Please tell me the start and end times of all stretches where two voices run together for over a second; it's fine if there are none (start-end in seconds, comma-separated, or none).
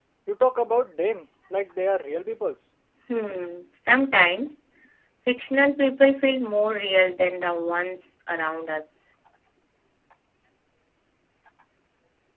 none